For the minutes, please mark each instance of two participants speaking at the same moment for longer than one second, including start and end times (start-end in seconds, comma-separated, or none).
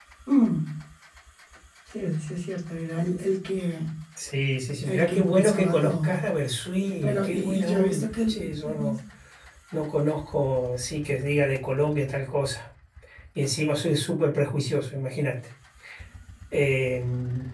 4.8-6.2, 7.0-9.0